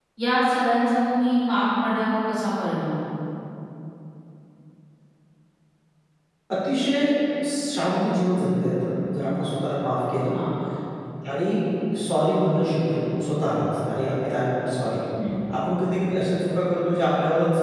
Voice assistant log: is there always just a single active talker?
Yes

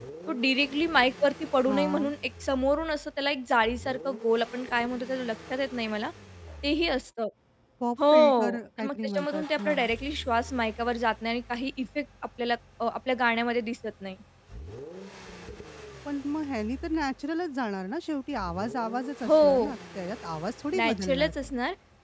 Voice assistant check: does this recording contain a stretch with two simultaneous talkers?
Yes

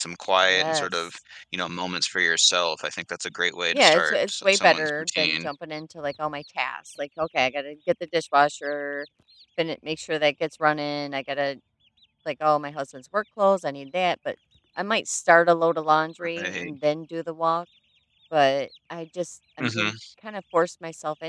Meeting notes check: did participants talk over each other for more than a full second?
Yes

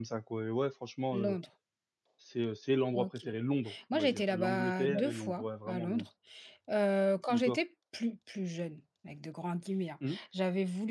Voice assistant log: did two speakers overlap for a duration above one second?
Yes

